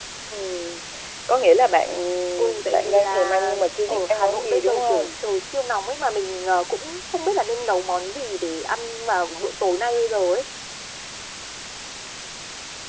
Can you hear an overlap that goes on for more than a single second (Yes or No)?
Yes